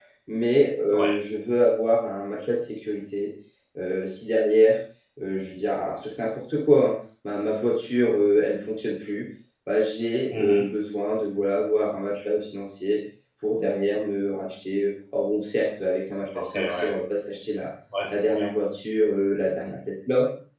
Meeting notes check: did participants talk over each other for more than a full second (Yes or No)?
No